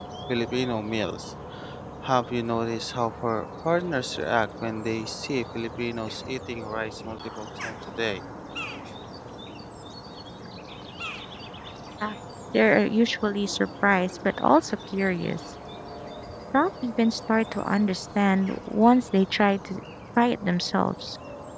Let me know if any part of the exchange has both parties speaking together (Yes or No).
No